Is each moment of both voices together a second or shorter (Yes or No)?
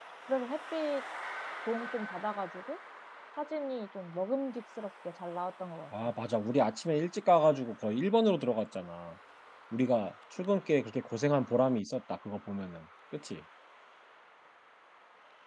Yes